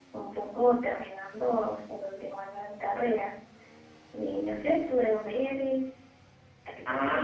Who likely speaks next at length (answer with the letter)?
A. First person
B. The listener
B